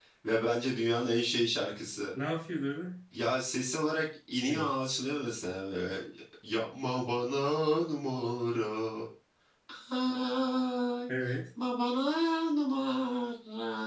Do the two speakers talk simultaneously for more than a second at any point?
No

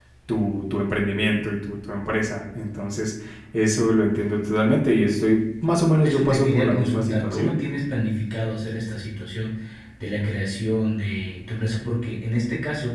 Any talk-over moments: Yes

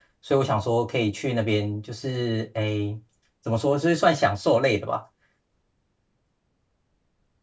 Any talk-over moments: No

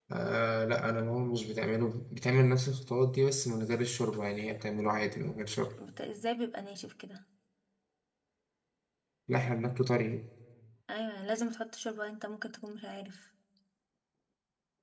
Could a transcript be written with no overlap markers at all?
Yes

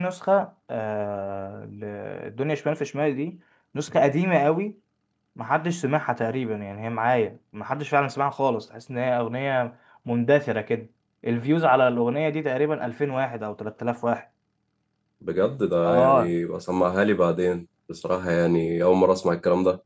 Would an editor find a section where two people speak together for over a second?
No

